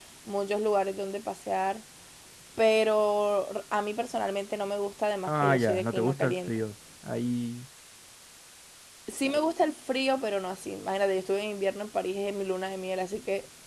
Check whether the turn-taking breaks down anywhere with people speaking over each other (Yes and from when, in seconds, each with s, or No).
Yes, from 5.3 s